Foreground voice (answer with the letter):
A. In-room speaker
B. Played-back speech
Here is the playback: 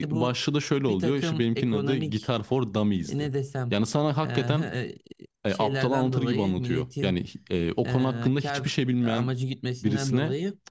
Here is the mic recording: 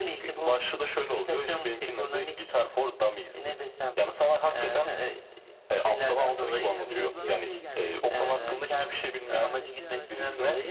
B